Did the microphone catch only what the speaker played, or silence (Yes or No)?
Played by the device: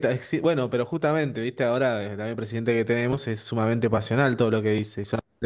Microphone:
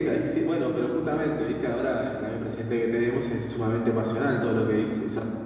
Yes